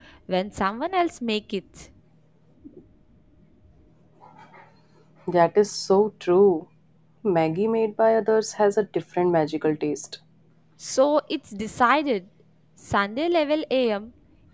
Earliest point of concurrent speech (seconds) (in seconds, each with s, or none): none